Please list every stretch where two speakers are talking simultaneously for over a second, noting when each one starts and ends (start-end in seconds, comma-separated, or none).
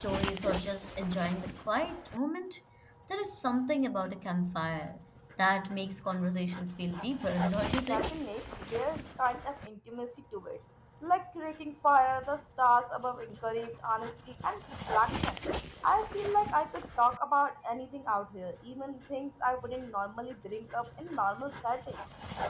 none